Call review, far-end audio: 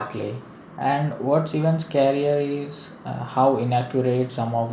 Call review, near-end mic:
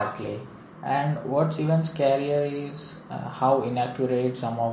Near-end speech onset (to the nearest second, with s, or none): none